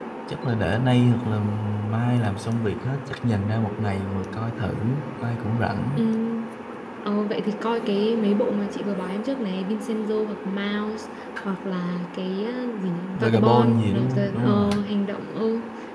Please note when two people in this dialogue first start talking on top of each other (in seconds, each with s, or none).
13.2 s